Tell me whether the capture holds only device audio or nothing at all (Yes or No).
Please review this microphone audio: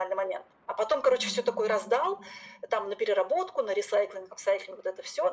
No